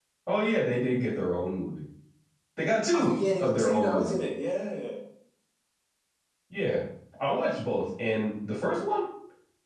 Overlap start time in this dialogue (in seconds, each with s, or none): 2.9 s